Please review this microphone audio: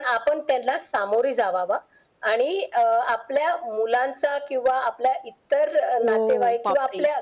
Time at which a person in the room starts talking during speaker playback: 6.0 s

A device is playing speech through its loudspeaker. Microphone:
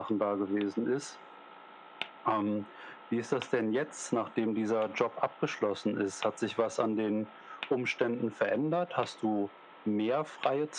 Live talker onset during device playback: none

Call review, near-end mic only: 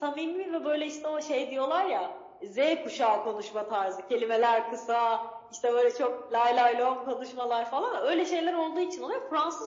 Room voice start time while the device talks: none

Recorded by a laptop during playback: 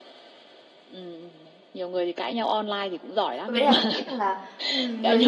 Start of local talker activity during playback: 3.5 s

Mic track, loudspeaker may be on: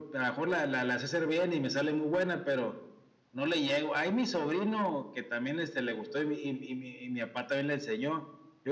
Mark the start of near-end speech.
none

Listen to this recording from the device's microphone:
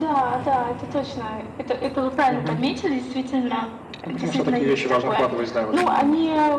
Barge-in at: none

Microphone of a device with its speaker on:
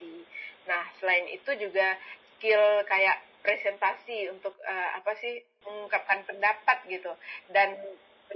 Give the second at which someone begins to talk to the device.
none

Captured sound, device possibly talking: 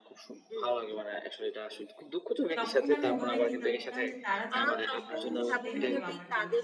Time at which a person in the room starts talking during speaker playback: 2.6 s

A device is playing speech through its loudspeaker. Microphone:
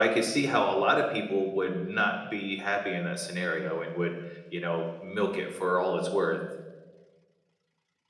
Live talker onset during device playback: none

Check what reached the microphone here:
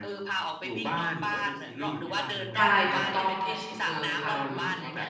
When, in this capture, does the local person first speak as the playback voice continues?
2.6 s

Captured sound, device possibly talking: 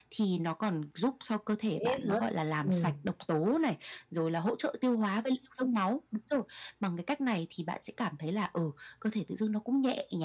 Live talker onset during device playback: 1.7 s

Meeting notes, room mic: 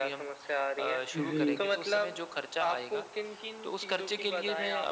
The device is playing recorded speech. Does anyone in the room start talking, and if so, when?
1.1 s

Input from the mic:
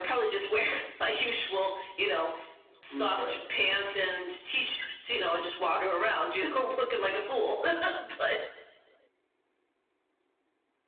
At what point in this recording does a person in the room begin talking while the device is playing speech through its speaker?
2.9 s

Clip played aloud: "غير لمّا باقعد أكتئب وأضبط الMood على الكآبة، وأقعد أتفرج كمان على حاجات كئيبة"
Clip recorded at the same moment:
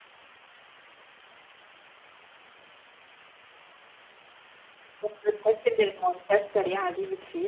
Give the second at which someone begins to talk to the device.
5.0 s

